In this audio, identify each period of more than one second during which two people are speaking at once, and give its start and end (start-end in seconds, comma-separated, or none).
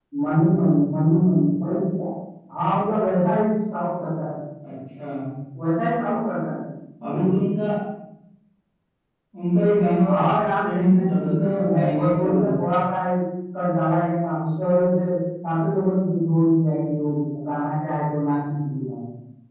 10.1-12.5